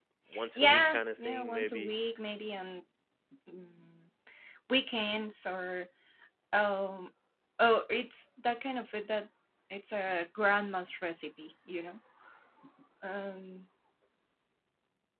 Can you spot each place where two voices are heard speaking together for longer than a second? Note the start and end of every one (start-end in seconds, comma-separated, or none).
0.6-1.9